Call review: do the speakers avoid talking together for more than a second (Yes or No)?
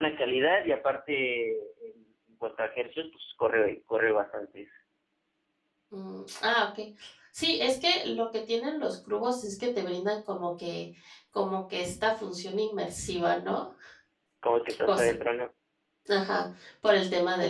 Yes